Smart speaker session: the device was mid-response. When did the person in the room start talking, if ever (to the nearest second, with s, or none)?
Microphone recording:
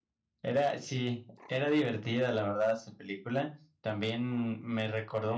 0 s